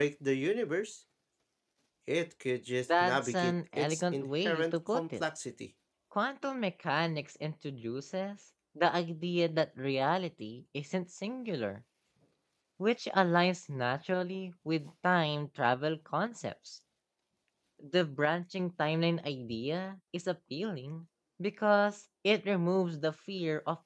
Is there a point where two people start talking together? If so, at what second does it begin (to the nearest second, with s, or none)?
3 s